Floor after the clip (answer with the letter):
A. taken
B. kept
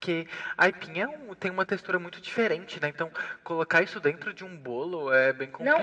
A